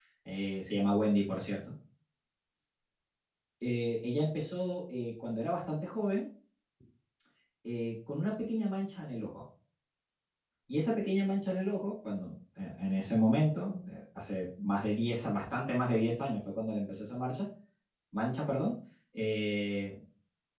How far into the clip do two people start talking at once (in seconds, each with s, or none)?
none